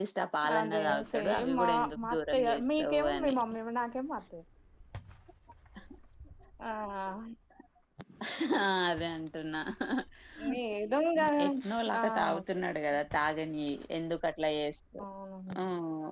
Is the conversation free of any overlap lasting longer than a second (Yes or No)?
No